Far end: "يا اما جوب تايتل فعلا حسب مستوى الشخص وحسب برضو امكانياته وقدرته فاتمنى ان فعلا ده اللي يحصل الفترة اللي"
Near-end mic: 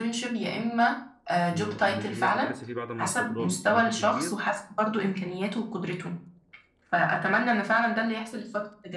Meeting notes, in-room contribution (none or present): present